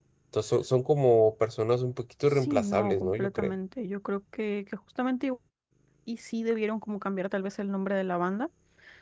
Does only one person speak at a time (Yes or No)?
No